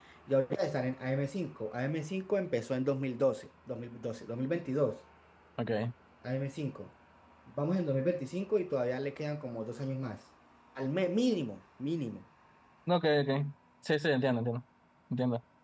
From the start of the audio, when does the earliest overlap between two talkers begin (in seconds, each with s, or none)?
none